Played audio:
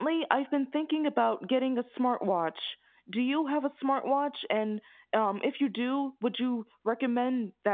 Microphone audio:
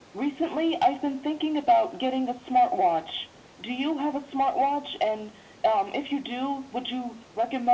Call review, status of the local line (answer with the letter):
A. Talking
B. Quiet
B